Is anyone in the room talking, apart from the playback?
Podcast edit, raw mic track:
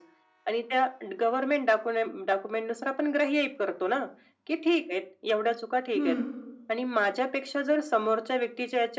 Yes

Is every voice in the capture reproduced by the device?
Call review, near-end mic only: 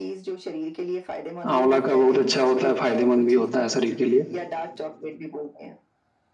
No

